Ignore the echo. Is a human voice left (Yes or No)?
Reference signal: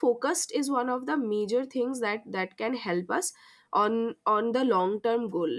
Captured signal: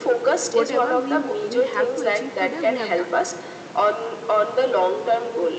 Yes